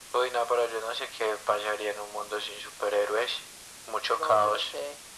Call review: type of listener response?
taking over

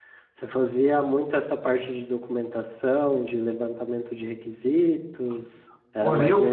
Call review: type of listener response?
taking over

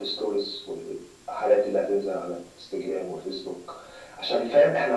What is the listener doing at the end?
listening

